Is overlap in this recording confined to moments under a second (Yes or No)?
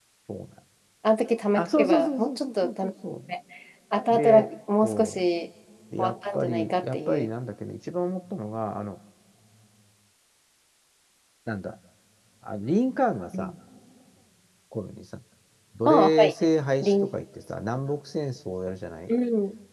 No